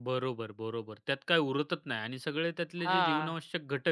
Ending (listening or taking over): listening